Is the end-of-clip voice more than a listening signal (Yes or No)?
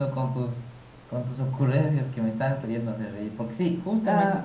Yes